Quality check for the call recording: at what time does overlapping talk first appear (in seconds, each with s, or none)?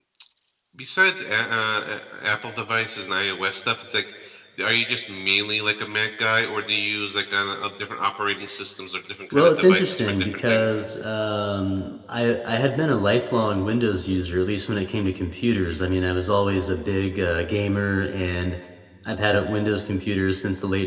9.3 s